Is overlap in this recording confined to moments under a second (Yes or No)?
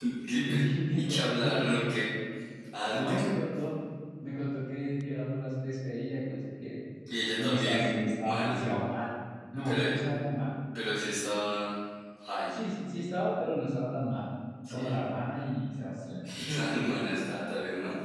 No